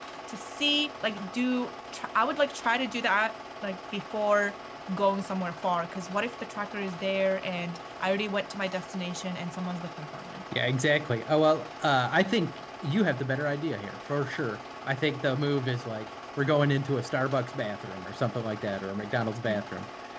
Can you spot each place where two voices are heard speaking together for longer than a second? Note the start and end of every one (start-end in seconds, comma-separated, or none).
none